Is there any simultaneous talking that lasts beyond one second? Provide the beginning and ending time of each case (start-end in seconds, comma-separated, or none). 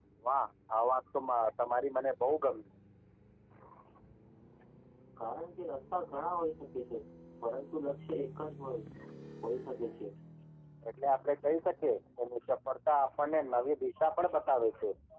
none